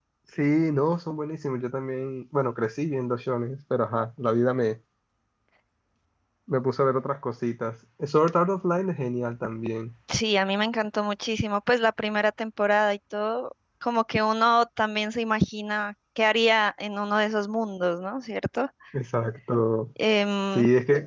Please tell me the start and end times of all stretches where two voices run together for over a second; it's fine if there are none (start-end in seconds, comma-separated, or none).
none